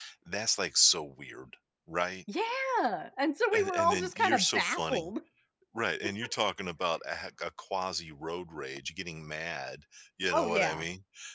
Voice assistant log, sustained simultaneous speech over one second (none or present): present